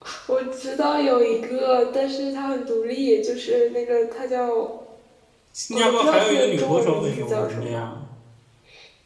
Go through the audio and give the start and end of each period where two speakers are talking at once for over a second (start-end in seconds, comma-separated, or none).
5.7-7.8